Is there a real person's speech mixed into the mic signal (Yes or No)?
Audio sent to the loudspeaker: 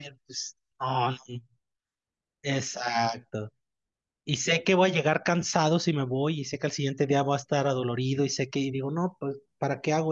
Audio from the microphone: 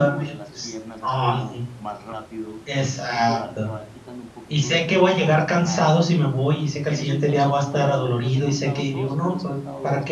Yes